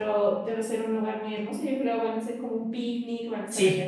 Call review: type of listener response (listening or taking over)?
taking over